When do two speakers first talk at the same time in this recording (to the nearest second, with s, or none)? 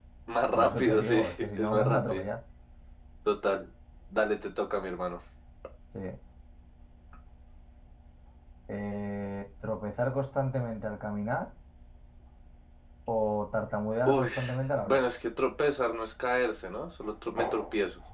1 s